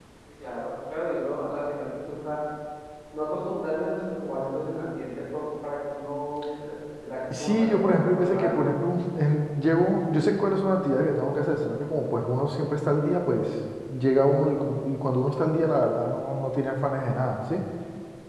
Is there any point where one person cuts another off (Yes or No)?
Yes